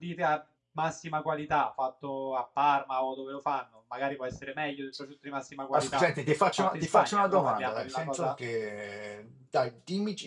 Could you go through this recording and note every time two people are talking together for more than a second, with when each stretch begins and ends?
6.6-8.3

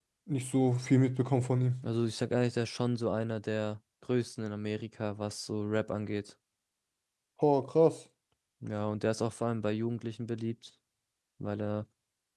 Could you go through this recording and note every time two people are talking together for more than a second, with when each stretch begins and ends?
none

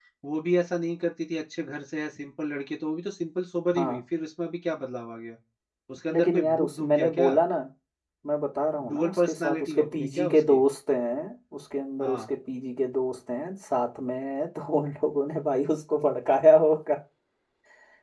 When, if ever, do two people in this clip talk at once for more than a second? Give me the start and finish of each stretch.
6.1-7.4, 8.9-10.6

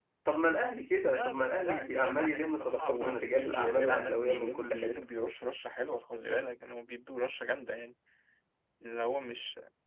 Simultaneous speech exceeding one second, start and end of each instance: 1.0-4.9

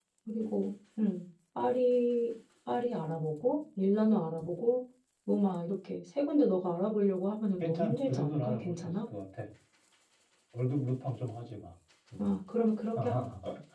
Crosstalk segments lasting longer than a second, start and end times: 7.6-8.9

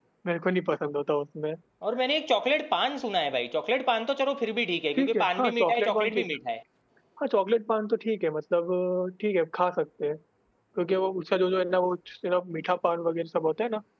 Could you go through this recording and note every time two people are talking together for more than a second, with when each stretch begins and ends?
5.0-6.2

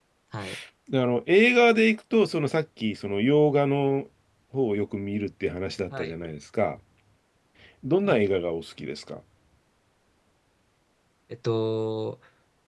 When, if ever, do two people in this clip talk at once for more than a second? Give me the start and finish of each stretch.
none

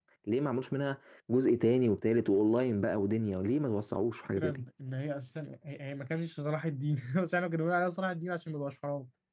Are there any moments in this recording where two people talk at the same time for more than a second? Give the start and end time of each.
none

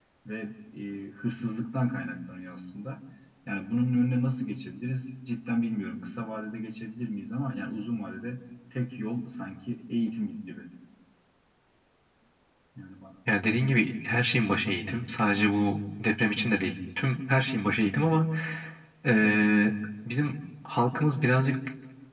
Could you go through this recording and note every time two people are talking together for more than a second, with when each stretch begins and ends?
none

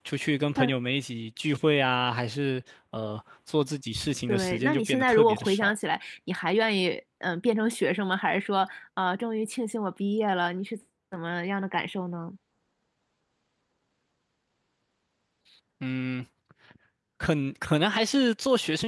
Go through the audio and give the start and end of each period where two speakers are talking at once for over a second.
4.3-5.8

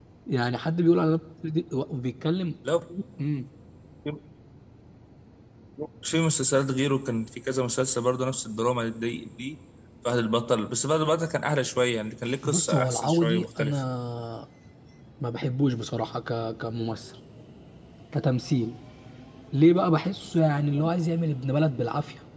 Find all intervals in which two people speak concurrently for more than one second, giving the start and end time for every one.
12.4-13.8

